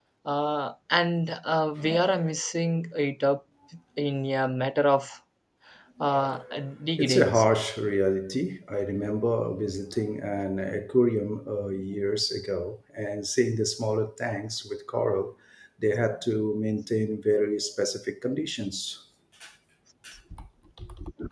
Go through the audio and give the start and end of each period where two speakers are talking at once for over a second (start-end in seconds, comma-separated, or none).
none